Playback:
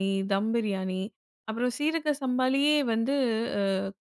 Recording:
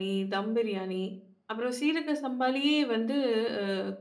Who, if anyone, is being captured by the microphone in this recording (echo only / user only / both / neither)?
echo only